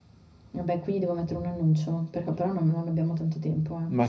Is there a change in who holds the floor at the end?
Yes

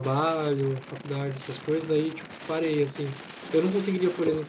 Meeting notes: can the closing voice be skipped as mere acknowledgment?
Yes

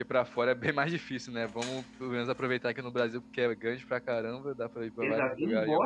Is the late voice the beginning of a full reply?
Yes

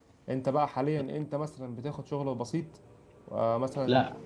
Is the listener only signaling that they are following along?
No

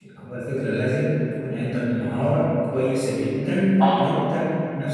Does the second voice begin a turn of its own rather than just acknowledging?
No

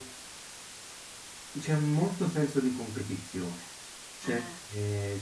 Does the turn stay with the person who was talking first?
Yes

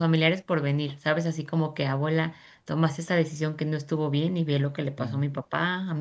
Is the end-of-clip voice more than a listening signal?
No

